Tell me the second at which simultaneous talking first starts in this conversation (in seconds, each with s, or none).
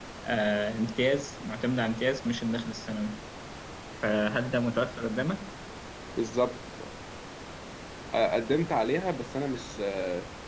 none